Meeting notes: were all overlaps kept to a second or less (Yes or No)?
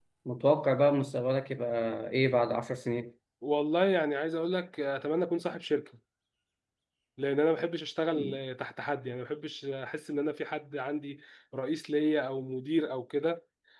Yes